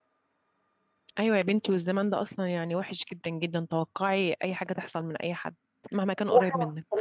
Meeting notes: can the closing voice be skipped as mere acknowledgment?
No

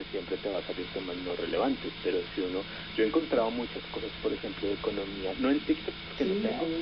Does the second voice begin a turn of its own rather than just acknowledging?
Yes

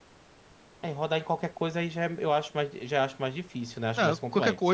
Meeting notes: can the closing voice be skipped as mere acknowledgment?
No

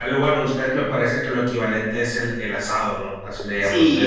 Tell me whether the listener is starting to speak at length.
Yes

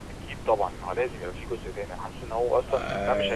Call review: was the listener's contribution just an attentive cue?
Yes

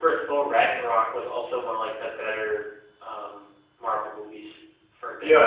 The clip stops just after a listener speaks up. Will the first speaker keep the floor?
No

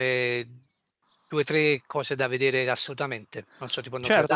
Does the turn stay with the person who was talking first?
No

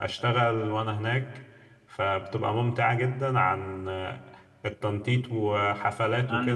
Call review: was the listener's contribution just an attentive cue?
Yes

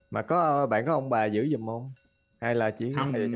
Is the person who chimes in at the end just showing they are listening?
No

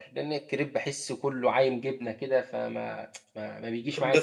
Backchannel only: No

